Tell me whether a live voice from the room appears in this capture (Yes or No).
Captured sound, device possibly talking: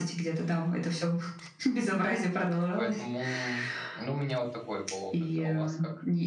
Yes